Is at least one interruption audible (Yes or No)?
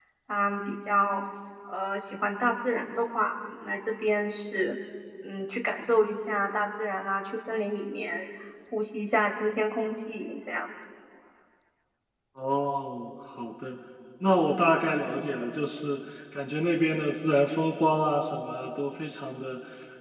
No